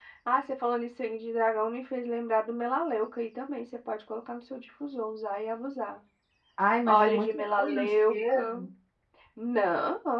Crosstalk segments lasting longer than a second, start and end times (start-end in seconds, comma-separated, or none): 6.9-8.6